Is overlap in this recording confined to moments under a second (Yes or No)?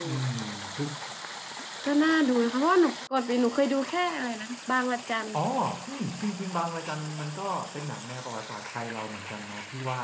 Yes